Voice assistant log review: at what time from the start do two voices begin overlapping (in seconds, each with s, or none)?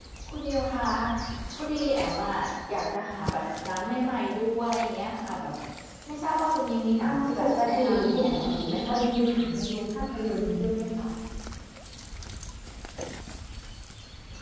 7.0 s